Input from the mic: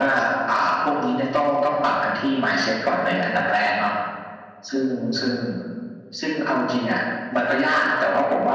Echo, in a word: present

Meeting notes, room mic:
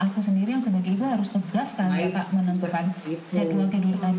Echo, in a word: present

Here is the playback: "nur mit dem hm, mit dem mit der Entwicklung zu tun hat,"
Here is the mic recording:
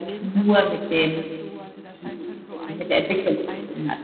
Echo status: present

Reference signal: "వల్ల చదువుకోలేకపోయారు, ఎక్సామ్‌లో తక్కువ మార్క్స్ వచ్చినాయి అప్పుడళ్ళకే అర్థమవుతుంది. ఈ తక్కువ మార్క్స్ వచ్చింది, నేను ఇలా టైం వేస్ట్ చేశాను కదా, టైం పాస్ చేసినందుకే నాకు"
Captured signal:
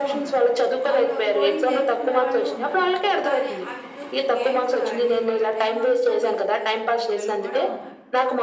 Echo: present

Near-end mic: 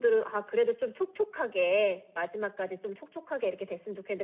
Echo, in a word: present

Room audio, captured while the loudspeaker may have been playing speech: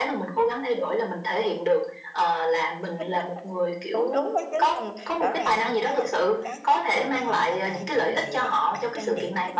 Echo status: present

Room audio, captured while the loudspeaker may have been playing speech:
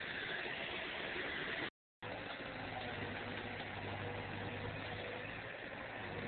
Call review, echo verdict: none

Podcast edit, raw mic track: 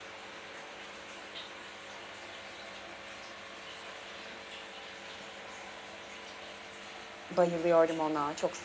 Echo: none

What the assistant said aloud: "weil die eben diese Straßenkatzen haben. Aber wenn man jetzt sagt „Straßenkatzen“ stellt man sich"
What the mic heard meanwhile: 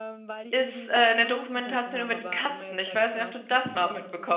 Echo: present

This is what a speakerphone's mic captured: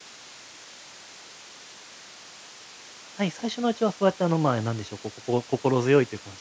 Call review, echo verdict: none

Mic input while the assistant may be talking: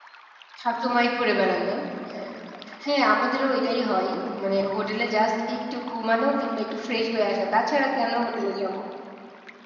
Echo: none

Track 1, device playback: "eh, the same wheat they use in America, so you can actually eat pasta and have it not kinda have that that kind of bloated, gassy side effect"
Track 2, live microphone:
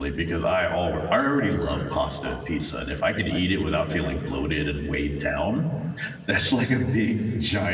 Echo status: none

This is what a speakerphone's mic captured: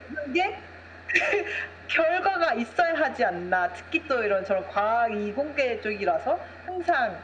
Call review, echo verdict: present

